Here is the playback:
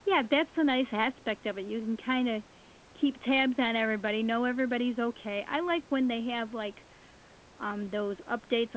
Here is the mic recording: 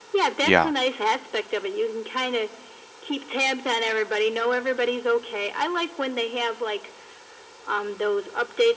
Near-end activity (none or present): present